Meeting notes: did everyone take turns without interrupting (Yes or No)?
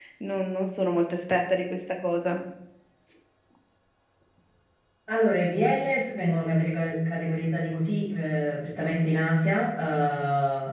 Yes